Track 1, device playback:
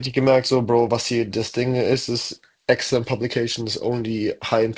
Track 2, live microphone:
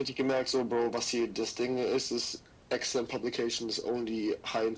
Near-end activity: none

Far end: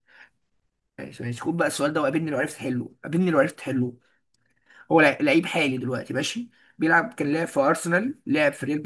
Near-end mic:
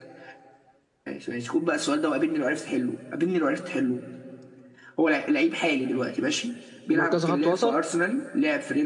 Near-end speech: present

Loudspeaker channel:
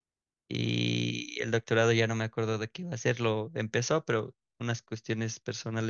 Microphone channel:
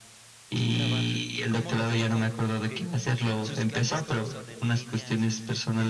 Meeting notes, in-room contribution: present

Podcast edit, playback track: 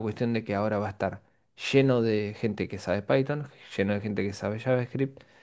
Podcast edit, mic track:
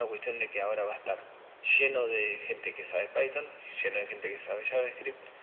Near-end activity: none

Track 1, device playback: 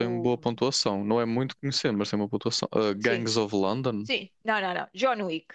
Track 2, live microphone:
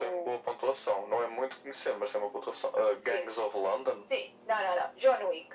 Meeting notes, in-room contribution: none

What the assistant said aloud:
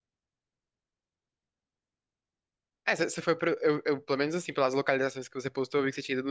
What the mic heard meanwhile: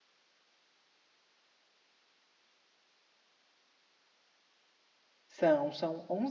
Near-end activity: present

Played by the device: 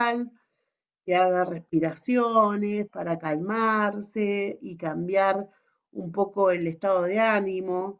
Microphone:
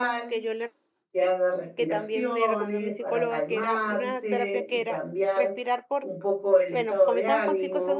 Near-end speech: present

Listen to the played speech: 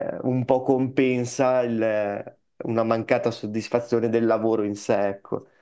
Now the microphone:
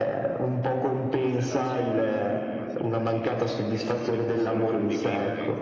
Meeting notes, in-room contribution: present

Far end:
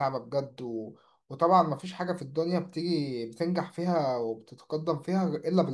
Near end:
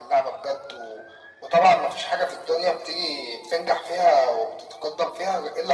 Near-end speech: none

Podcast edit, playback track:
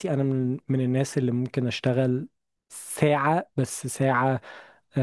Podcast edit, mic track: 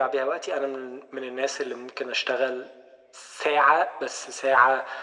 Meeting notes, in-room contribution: none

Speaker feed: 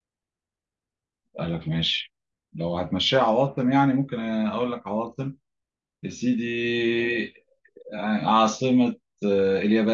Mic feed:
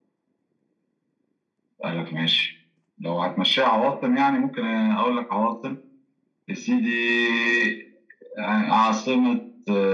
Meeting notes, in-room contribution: none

